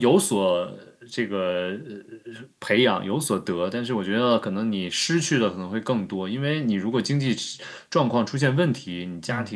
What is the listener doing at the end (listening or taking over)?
listening